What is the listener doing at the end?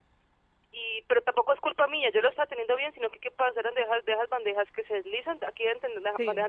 listening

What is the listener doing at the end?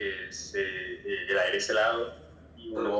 listening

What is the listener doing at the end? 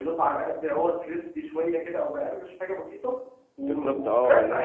taking over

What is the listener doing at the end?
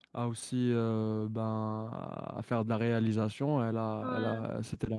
listening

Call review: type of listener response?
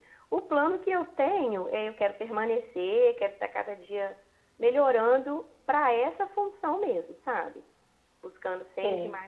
listening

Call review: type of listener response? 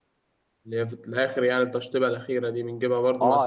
taking over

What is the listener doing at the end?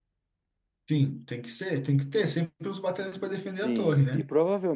taking over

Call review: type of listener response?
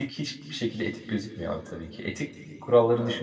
listening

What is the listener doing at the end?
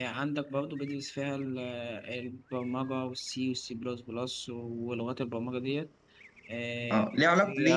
taking over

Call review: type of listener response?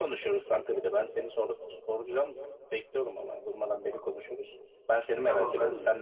taking over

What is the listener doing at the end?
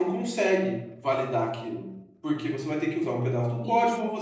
listening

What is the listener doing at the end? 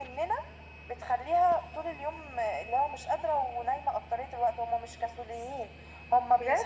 listening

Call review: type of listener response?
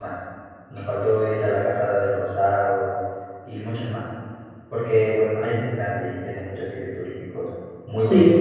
taking over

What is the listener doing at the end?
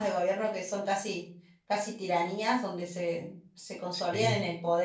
listening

